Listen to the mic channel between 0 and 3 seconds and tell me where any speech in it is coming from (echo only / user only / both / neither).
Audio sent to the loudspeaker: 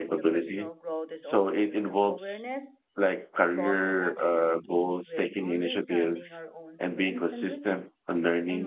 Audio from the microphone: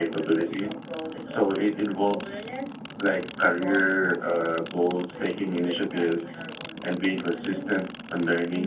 echo only